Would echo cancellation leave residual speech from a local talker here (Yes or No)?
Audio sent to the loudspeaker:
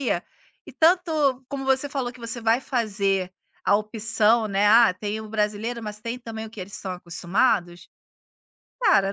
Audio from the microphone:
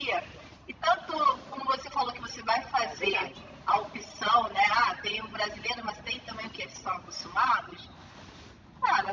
Yes